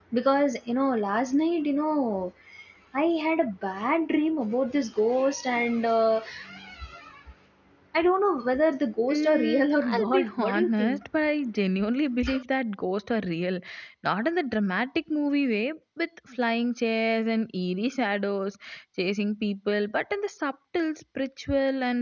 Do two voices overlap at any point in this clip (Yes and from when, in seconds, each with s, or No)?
Yes, from 9.1 s